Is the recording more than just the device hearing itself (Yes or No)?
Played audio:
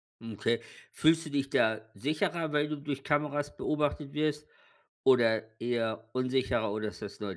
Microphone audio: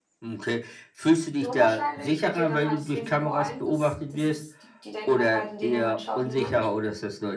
Yes